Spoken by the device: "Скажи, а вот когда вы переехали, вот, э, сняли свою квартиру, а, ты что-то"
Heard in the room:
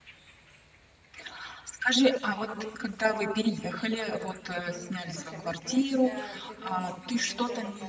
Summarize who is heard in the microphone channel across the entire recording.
both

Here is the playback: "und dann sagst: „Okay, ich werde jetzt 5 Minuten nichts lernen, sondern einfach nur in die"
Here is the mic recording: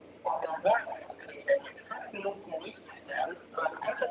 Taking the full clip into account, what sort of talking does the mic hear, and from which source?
echo only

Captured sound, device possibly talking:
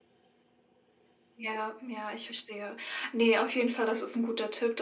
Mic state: echo only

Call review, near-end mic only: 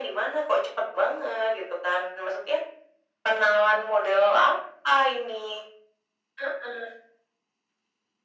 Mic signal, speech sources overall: echo only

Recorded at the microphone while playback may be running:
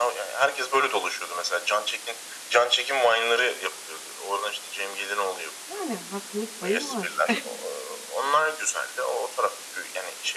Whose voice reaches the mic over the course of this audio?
both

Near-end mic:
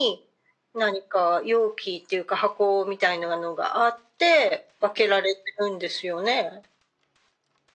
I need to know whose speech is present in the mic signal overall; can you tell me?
echo only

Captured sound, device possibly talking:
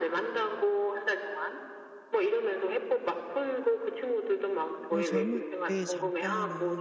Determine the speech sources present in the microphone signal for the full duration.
both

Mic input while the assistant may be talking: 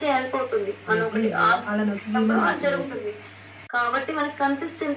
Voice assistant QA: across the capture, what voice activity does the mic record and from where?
both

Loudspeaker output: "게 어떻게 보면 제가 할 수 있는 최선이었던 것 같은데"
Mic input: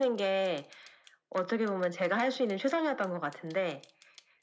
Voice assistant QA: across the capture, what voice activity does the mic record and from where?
echo only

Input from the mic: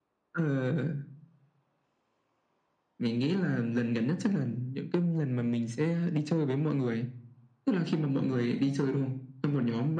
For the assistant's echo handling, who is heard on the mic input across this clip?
echo only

